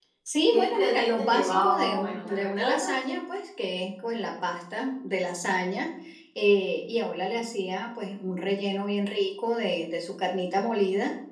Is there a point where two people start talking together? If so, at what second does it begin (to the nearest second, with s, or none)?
1 s